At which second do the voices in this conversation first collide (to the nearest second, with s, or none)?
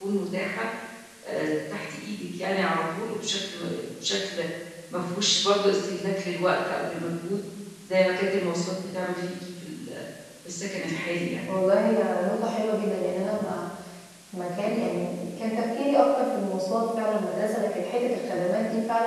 none